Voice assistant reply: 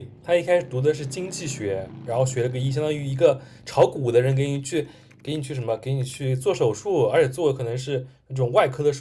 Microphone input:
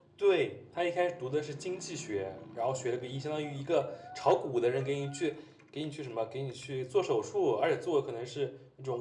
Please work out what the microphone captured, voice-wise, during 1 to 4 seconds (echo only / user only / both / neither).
echo only